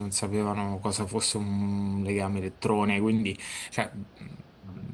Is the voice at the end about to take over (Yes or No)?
No